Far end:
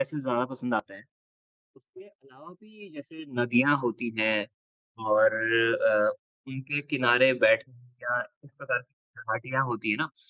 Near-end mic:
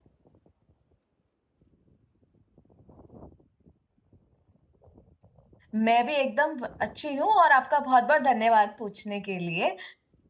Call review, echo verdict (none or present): none